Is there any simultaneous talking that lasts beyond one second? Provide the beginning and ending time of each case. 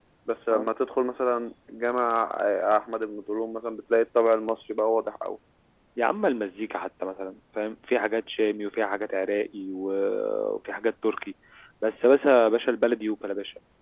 none

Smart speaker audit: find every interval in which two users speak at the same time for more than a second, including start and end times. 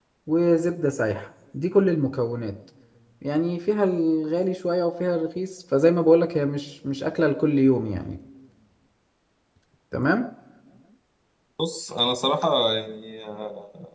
none

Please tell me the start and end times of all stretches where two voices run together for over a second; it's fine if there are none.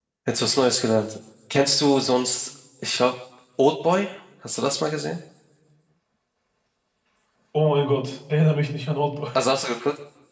none

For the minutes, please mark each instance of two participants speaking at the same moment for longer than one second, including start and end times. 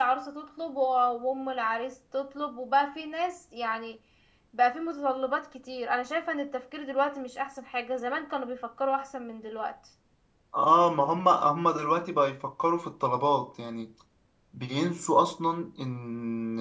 none

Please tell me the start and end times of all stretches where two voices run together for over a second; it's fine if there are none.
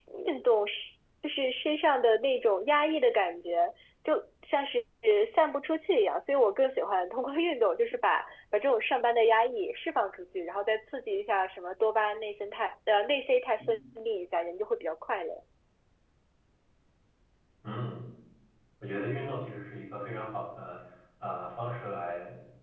none

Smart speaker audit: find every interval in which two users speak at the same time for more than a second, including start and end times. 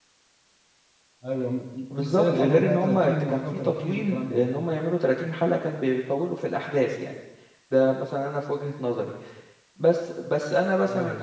1.9-4.5

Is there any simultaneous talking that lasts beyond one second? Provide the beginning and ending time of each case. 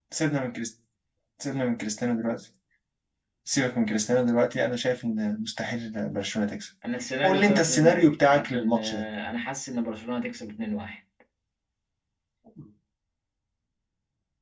7.2-9.1

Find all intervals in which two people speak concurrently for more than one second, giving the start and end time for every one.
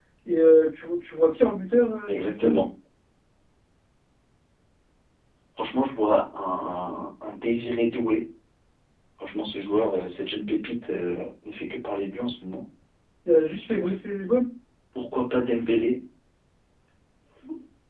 none

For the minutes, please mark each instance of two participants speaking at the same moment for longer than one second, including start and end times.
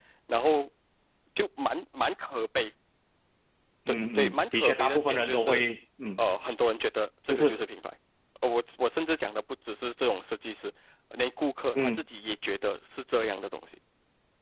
3.9-5.6

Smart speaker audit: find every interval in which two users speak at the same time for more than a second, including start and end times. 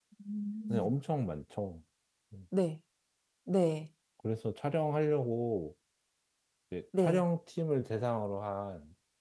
none

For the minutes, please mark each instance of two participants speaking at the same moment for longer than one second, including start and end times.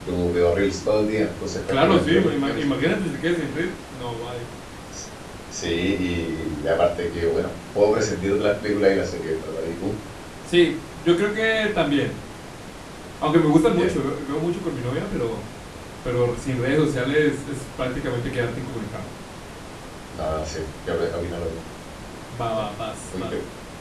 1.7-2.9

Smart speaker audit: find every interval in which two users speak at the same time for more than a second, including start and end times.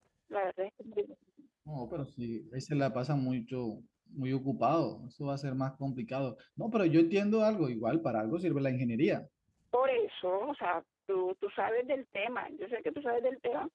none

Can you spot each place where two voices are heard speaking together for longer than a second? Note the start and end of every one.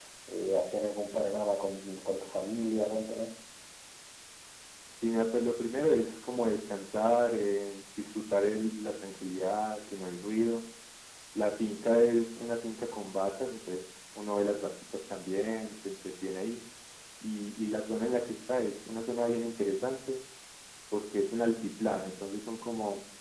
none

